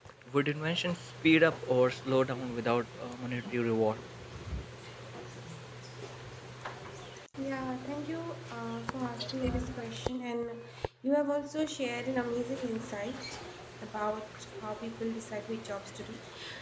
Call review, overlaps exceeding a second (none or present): none